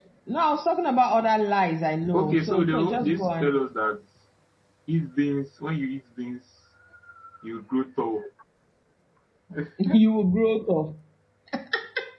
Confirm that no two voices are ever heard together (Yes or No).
No